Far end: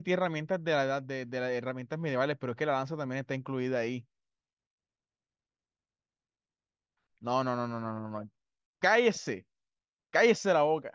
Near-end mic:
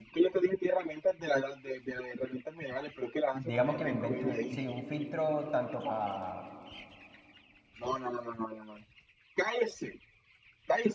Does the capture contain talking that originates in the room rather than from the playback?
Yes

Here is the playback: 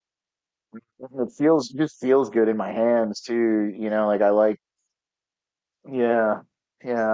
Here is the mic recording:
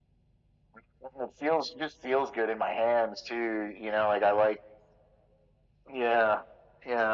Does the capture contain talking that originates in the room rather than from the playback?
No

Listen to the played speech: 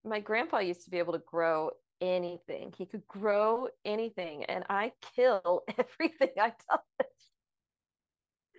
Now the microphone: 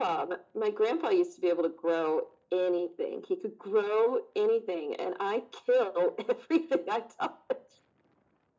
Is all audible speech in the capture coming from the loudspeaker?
Yes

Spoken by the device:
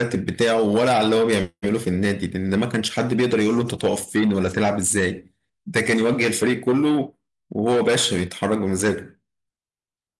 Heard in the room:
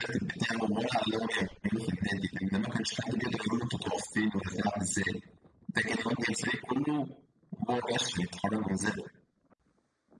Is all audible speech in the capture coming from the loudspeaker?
Yes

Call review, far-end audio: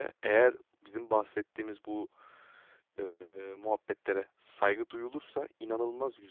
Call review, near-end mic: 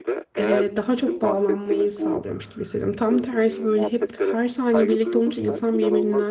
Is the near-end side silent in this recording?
No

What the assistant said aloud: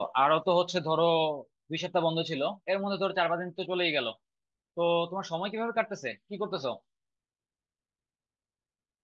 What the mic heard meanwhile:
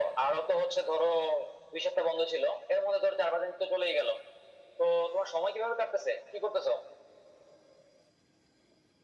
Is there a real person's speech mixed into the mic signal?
No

